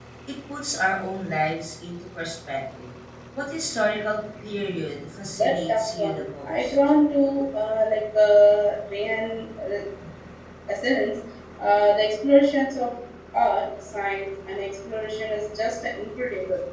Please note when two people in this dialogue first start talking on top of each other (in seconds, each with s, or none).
5.4 s